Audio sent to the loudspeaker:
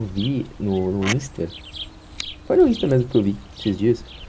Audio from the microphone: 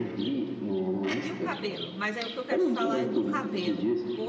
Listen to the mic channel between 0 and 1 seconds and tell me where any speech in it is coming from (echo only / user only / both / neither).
echo only